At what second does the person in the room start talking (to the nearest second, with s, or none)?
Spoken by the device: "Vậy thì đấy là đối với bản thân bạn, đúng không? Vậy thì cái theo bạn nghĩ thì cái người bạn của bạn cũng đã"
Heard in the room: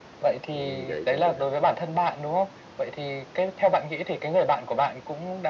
1 s